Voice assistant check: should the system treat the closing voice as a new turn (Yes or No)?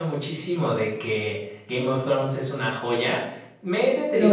No